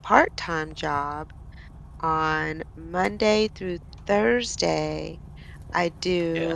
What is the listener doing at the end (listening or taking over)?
listening